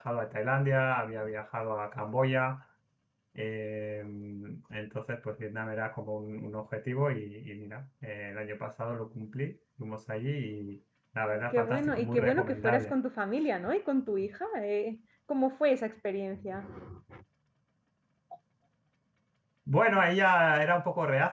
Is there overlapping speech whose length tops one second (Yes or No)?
Yes